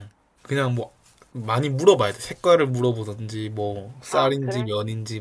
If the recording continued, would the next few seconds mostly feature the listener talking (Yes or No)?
No